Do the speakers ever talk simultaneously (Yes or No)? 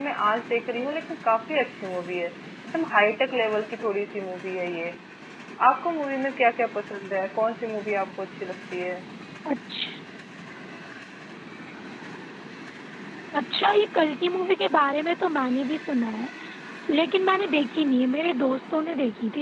No